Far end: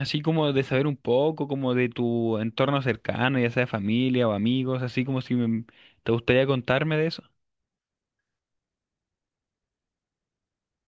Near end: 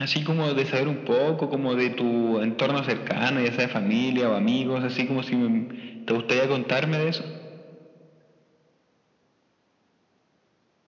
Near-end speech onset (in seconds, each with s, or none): none